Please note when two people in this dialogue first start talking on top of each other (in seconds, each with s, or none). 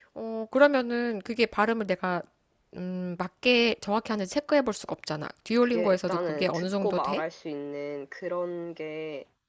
5.6 s